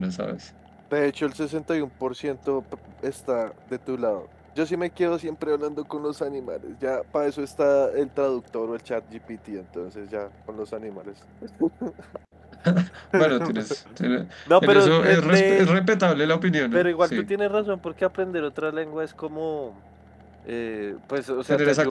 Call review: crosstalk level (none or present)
present